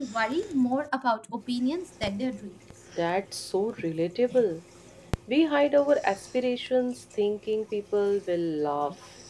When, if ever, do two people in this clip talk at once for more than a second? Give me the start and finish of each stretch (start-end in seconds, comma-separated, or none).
none